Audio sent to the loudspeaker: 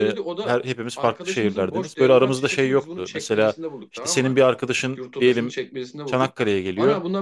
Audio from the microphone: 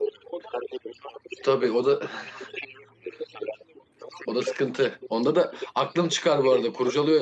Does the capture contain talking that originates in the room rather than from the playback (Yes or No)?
Yes